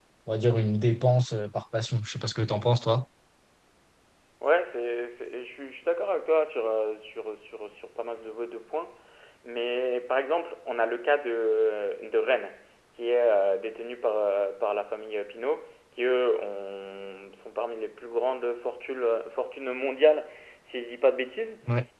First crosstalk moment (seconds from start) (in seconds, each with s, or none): none